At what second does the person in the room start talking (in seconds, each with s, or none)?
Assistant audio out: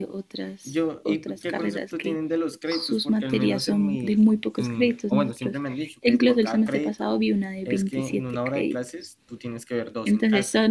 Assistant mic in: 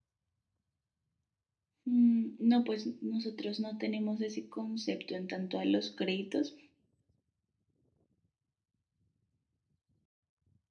1.8 s